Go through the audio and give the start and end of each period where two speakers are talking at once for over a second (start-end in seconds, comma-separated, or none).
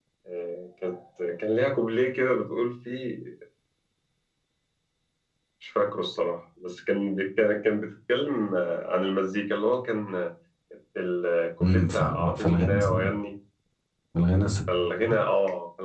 11.6-13.0